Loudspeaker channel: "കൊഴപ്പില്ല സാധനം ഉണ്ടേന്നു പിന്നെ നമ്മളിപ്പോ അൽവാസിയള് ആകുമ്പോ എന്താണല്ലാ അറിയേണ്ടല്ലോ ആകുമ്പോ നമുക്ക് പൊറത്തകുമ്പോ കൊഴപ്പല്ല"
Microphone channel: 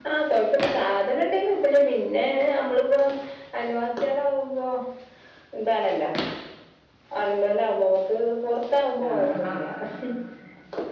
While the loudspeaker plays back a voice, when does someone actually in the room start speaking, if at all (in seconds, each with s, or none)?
9.1 s